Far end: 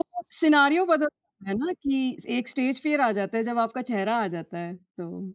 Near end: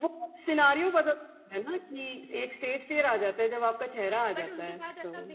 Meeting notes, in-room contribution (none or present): present